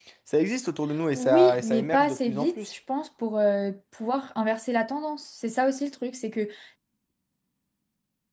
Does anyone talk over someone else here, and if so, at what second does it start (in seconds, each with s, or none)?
1.1 s